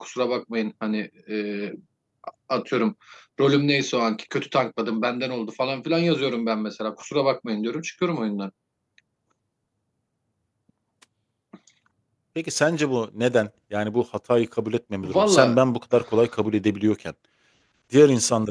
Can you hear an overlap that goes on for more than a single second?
No

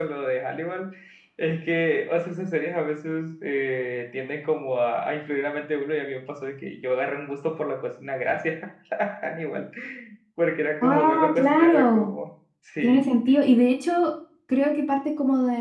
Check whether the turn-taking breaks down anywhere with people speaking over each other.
Yes, from 10.8 s

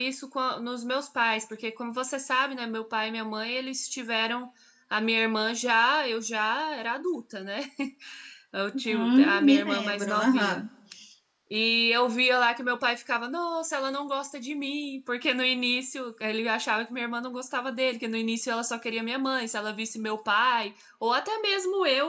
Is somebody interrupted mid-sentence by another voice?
Yes, from 8.8 s

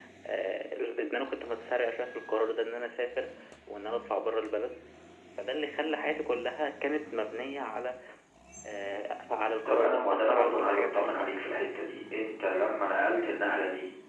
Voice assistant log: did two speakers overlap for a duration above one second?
Yes, from 9.7 s

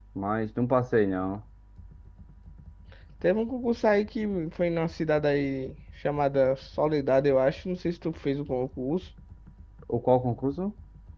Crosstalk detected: No

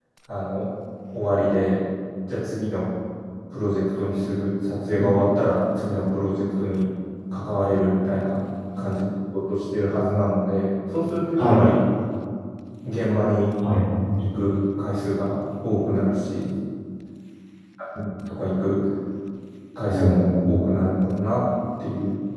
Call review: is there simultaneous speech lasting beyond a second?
No

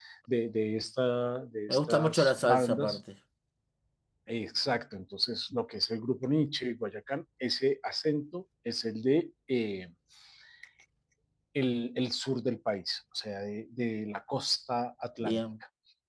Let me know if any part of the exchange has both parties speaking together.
Yes, from 1.7 s

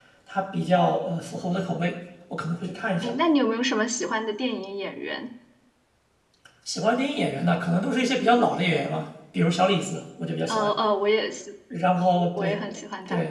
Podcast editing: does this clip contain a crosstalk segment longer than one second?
No

